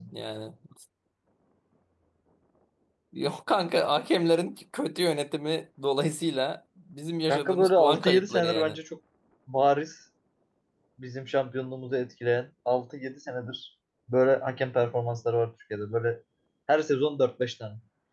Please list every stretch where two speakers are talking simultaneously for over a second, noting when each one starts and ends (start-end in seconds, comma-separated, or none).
7.3-8.8